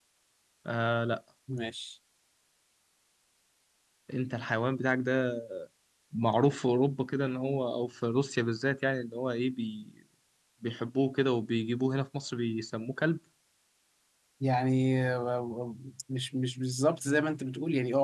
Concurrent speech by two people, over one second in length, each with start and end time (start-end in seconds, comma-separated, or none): none